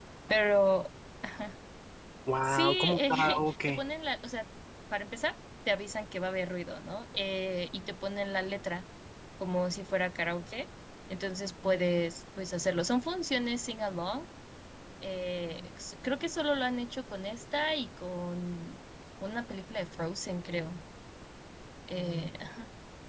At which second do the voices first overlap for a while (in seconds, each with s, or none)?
2.4 s